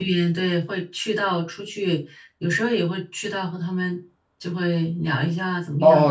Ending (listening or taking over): taking over